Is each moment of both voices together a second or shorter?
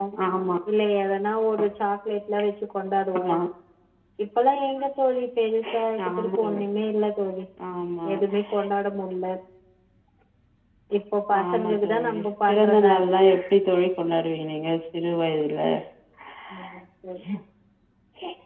No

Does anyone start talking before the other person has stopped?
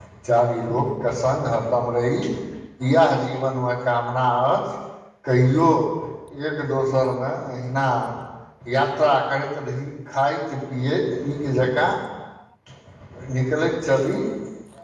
No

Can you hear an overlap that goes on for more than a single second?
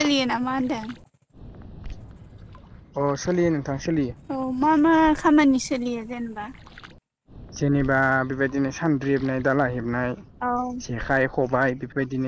No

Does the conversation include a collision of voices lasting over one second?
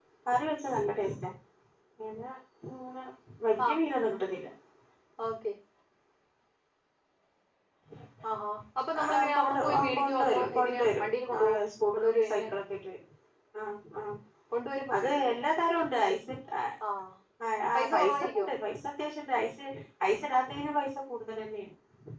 Yes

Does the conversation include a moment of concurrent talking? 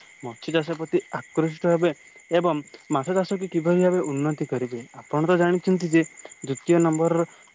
No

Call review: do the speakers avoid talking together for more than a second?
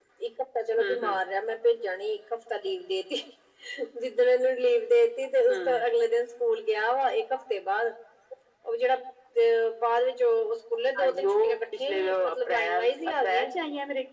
No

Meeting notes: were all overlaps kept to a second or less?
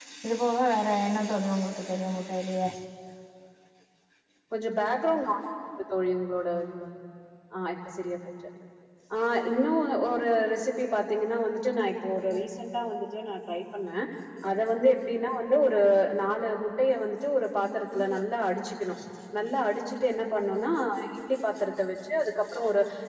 Yes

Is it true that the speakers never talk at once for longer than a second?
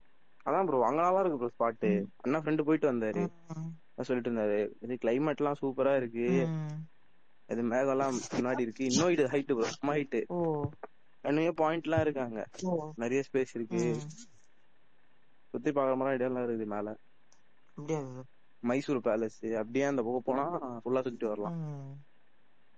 Yes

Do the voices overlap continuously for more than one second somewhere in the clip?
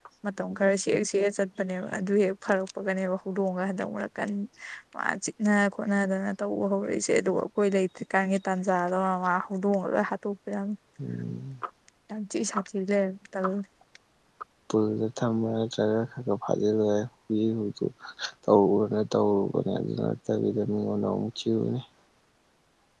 No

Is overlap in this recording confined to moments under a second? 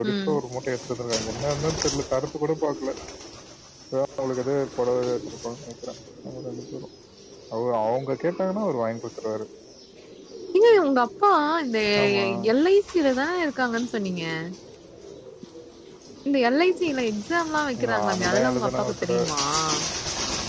No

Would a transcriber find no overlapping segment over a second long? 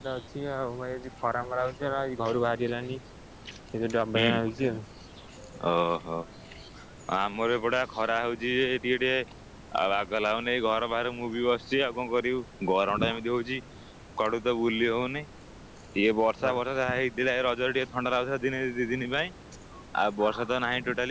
Yes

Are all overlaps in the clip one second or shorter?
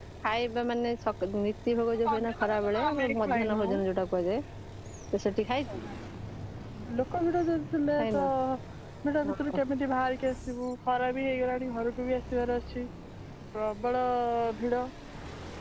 No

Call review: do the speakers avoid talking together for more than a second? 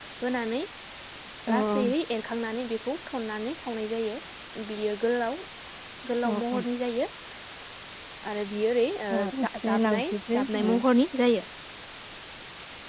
No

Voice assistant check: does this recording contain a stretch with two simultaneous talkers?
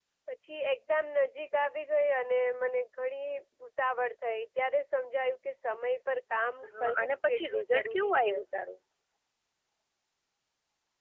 Yes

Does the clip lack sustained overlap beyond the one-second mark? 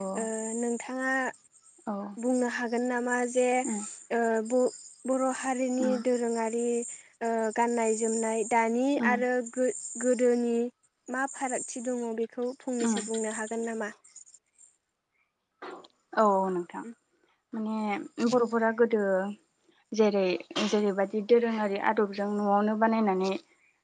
Yes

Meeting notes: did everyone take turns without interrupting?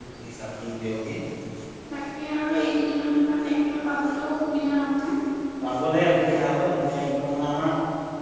Yes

